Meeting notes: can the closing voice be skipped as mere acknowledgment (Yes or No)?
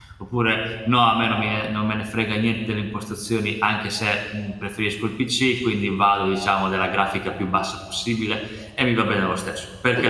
No